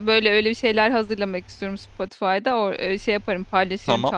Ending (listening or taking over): taking over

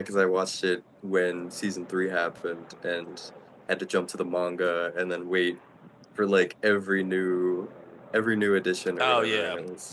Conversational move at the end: taking over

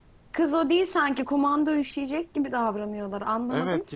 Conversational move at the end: taking over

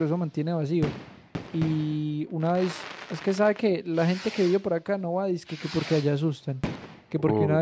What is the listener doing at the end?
listening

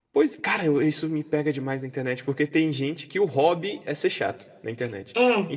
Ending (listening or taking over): listening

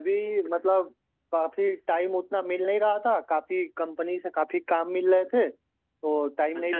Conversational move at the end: listening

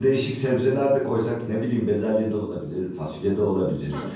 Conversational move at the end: taking over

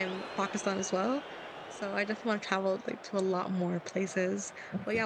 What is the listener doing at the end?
listening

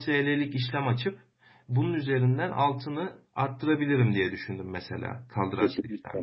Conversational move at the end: taking over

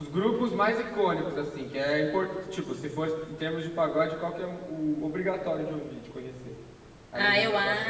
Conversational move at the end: taking over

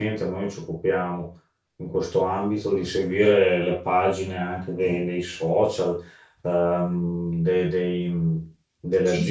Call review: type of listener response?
taking over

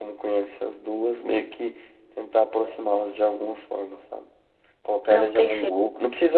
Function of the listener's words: listening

